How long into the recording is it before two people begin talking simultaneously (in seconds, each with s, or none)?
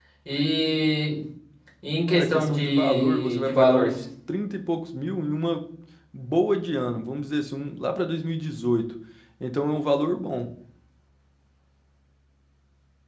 2.1 s